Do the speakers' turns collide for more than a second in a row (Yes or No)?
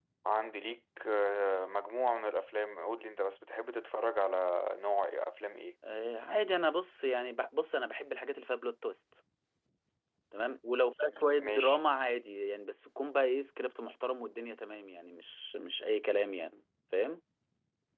No